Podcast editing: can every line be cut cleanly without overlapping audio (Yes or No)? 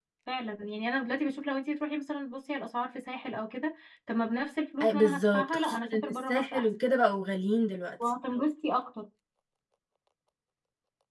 No